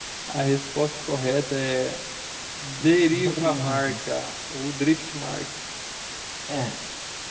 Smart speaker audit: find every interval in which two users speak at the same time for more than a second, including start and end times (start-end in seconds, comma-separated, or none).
2.8-4.1